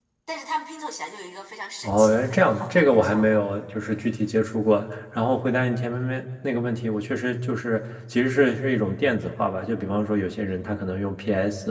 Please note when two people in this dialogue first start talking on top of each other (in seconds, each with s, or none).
1.8 s